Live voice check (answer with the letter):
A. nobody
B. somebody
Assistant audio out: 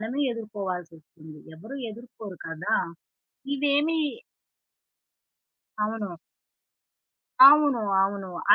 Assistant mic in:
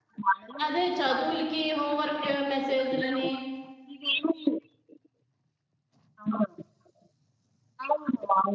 B